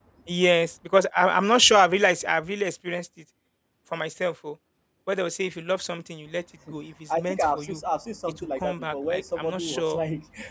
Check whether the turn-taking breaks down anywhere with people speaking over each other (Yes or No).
Yes